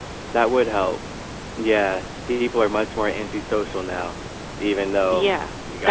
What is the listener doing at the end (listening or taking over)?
taking over